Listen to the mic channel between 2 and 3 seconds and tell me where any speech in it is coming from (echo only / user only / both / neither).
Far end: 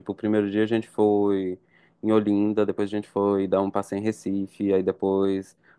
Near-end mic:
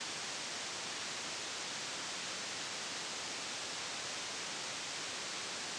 neither